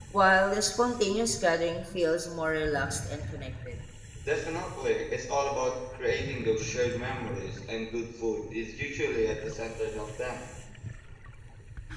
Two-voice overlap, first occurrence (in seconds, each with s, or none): none